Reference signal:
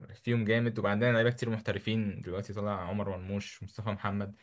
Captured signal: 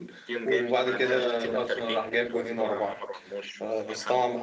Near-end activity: present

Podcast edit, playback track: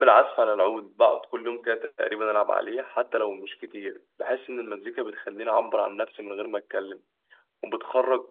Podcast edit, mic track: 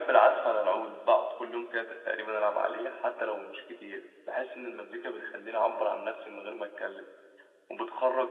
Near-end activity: none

